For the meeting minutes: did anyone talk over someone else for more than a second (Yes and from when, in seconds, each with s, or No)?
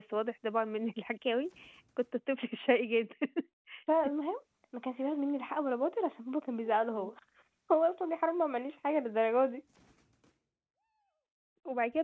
No